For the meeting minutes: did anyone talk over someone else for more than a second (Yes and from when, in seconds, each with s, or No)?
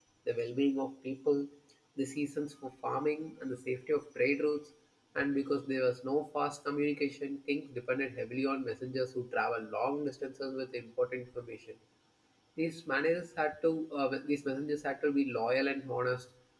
No